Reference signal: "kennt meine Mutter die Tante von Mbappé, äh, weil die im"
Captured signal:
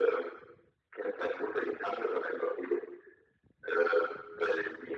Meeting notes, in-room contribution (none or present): none